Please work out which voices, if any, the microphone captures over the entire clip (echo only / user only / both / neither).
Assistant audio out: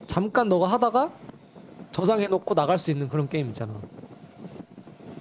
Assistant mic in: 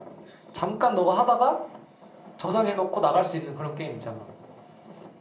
echo only